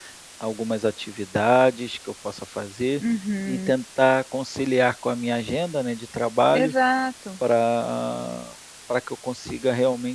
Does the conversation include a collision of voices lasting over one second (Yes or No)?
No